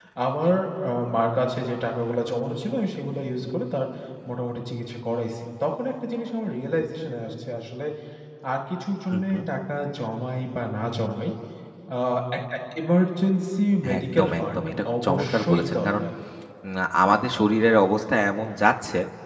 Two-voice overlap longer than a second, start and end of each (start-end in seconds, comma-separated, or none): 14.0-16.0